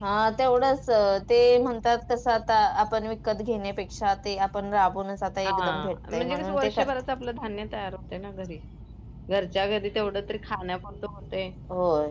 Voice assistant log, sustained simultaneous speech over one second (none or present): present